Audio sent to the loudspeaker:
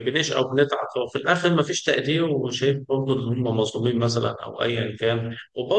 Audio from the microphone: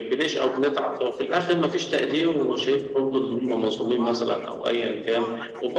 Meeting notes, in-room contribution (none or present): present